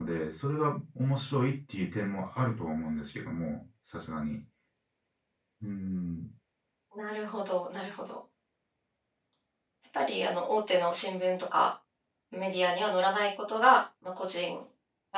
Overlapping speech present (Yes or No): No